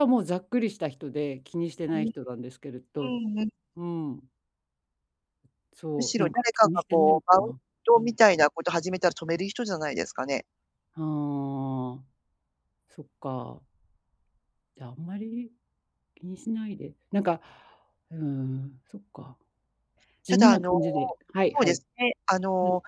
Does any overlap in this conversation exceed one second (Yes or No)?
Yes